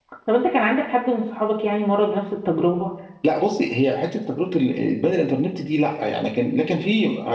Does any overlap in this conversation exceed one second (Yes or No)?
No